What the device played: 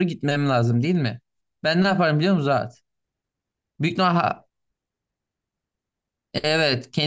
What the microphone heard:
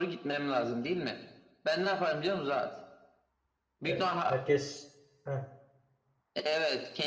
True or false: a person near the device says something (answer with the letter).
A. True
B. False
A